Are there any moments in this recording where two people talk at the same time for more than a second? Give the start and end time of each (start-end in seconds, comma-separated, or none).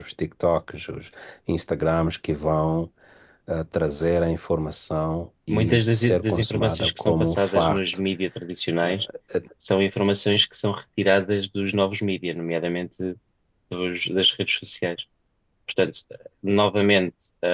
5.5-7.8